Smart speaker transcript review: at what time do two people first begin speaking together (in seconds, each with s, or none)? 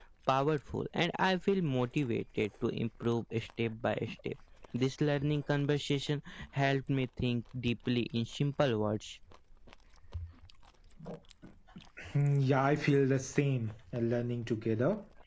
none